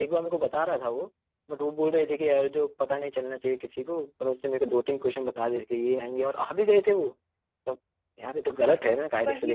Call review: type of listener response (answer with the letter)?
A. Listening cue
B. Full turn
B